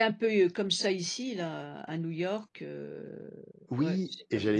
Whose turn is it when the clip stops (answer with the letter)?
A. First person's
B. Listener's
B